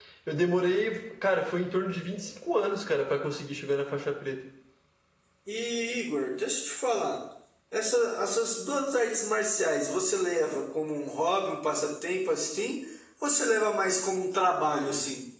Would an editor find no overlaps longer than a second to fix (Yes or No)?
Yes